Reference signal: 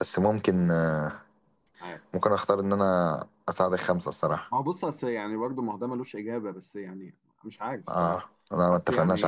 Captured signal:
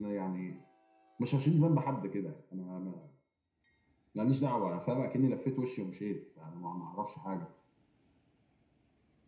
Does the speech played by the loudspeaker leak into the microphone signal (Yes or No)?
No